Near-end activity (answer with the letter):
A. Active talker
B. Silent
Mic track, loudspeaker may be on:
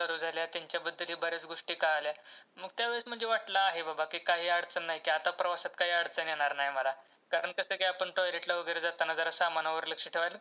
B